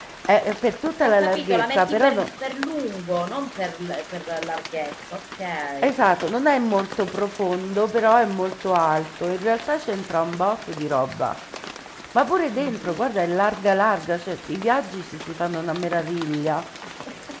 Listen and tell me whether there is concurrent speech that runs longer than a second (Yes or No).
Yes